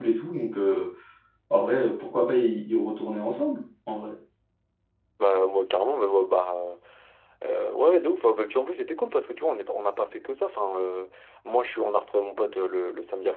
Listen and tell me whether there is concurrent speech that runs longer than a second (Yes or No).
No